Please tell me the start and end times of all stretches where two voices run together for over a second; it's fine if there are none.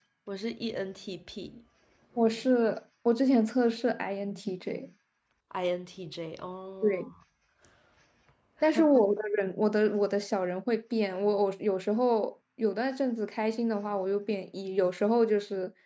none

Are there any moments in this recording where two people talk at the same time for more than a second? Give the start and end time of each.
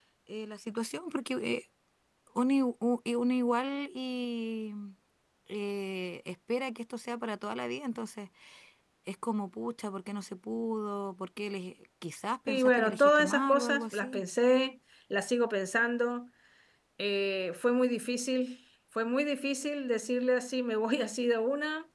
12.5-14.2

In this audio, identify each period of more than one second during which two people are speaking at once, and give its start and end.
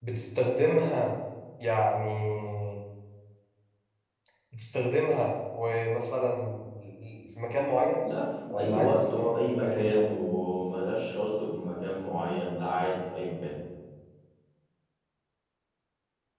8.6-10.0

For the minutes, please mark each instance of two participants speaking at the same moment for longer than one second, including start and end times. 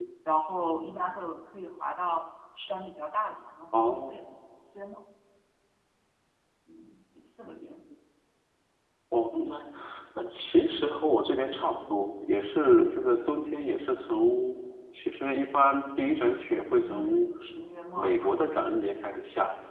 none

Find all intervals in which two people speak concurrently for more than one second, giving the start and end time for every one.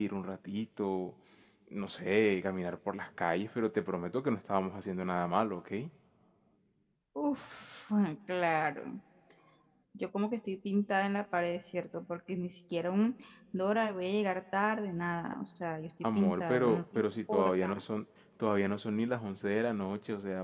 16.2-17.8

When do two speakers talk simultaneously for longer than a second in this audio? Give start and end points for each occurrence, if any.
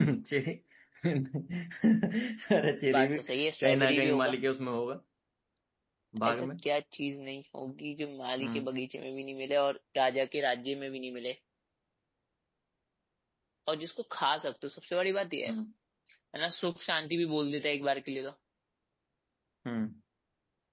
3.0-4.3

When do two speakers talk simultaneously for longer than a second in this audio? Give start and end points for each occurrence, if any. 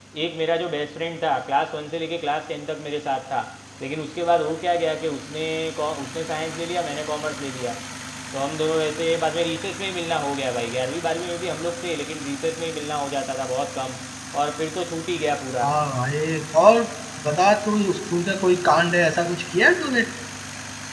none

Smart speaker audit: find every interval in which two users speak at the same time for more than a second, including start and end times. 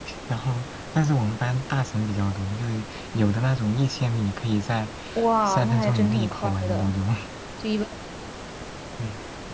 5.5-7.0

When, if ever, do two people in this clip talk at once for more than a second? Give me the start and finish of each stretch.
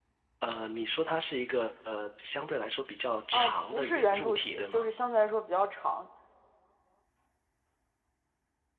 3.3-4.8

